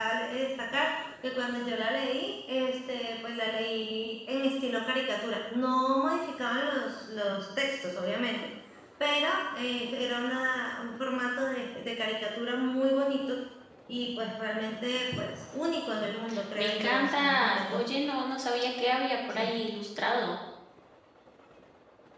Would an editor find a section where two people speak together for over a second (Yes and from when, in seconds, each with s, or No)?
Yes, from 16.6 s